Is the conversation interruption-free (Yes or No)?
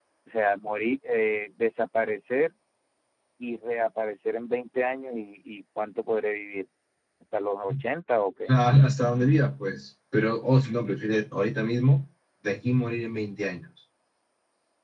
Yes